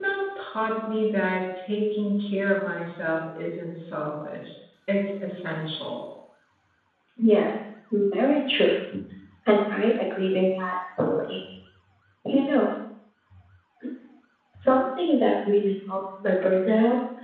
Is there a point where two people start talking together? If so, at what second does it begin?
none

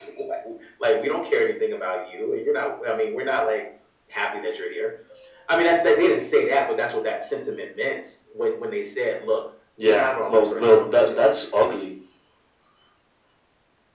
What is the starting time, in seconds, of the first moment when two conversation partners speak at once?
10 s

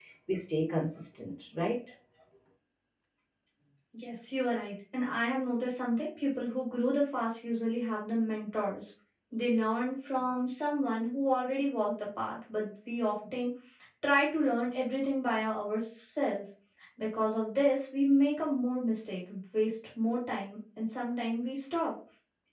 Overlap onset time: none

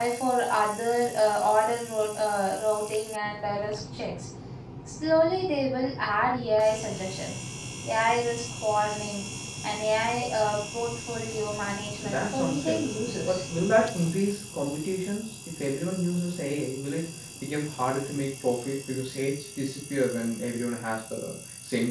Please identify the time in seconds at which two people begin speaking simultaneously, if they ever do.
12 s

